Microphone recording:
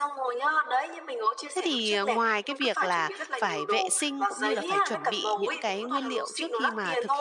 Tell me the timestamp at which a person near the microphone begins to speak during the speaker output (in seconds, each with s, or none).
1.5 s